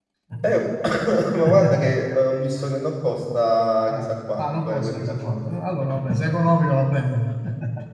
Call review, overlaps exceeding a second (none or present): present